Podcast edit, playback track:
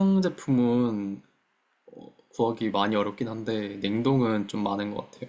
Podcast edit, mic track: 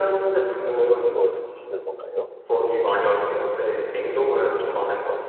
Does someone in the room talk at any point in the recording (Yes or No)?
Yes